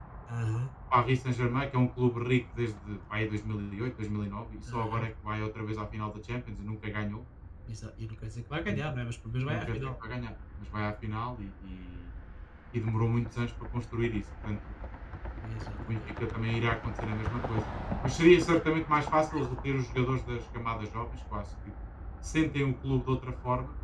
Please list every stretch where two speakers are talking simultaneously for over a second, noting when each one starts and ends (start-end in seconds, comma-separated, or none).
none